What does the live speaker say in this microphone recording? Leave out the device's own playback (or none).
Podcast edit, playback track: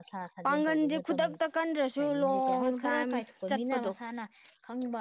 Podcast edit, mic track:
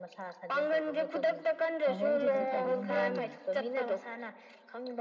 ꯐꯕꯕꯨꯗꯤ ꯑꯗꯨꯝ ꯐꯕ ꯑꯗꯨꯝ ꯌꯥꯎꯔꯤꯅꯤ